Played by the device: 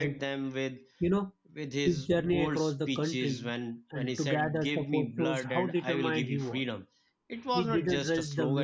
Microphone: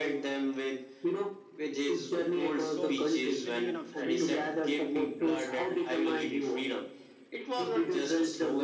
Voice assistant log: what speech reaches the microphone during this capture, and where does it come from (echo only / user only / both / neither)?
both